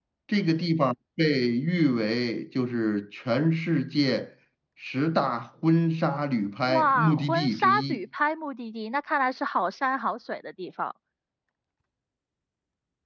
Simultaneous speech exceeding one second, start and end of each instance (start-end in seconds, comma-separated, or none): 6.7-8.0